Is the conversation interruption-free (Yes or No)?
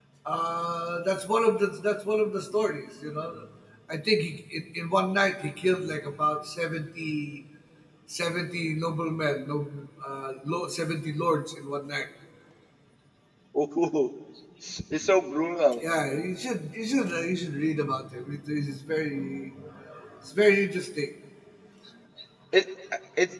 Yes